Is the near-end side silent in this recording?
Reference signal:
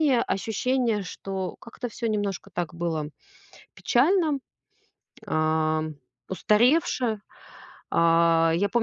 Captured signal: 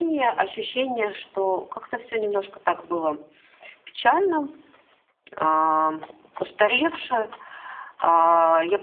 Yes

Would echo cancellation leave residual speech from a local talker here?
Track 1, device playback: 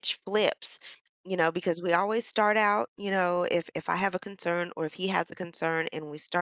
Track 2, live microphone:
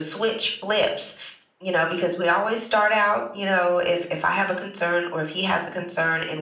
No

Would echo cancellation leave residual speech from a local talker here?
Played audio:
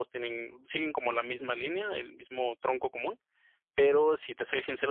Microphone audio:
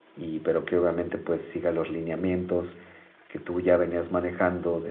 Yes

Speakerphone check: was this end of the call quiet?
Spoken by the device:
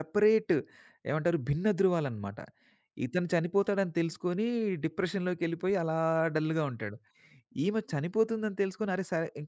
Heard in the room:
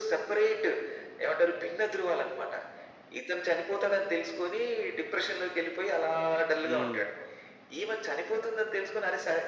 No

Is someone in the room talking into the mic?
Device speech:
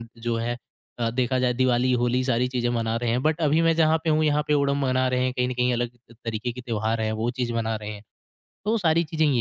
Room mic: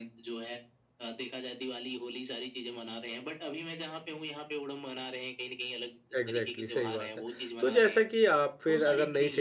Yes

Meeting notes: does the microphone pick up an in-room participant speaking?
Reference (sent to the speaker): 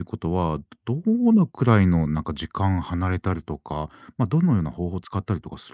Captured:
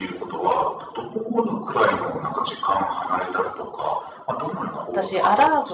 Yes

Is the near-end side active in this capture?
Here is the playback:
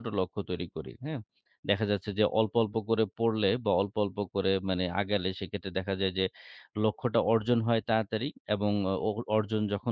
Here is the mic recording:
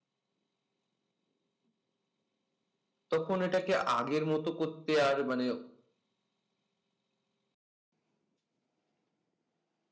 Yes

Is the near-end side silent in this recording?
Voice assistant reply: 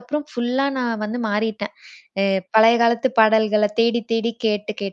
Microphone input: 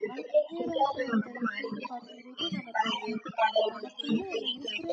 No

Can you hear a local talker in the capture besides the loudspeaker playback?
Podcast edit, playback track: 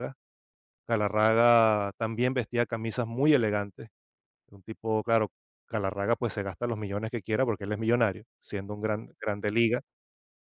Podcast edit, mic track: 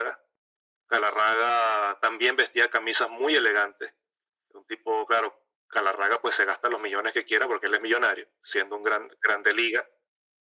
No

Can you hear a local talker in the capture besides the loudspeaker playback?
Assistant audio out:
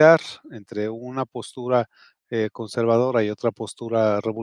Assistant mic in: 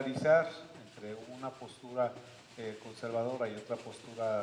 No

